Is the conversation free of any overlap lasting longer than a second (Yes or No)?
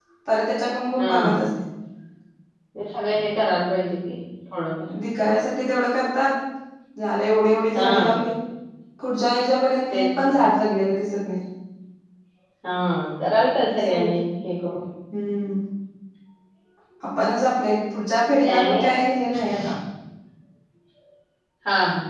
Yes